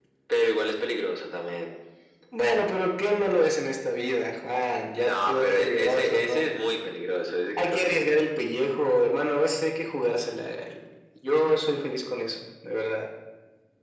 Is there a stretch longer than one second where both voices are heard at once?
Yes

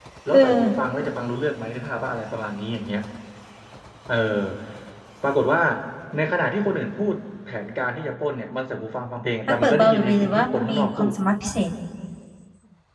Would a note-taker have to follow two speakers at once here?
Yes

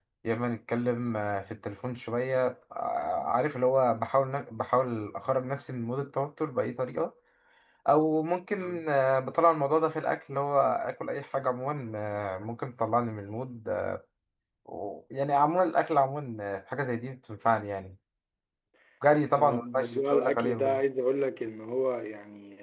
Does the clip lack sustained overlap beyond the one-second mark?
No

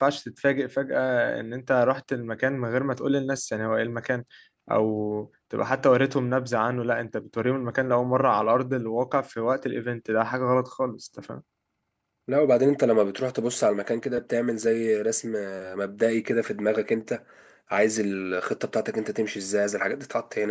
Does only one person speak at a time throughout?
Yes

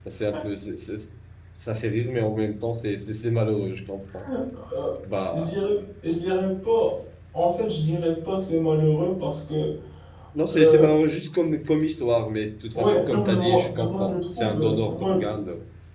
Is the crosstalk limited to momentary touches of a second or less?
No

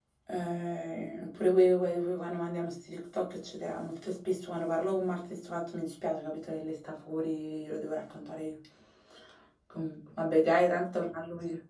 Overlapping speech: No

